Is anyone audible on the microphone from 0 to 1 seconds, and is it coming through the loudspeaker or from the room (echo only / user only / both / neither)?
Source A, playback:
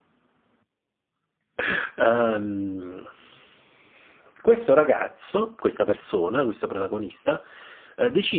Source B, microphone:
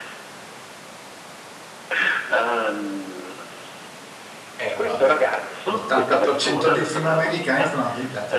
neither